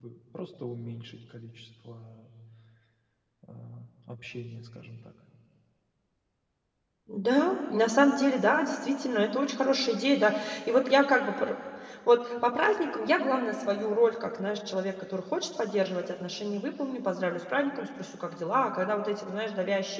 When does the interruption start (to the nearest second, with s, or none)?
none